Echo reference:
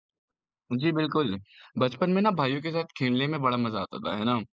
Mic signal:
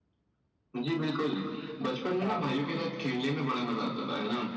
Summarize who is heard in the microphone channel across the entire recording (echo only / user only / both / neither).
both